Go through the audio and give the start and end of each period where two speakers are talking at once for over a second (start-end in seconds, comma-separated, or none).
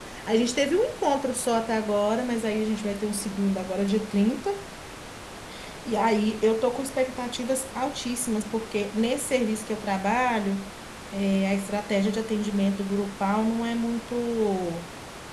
none